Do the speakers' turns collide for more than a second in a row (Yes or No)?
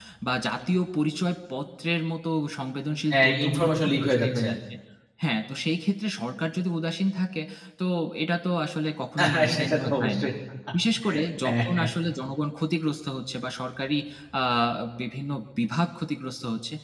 Yes